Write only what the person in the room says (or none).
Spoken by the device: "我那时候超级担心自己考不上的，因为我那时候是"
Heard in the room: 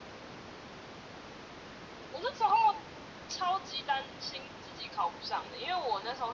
none